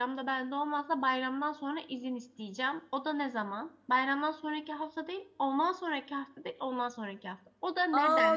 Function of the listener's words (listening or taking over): taking over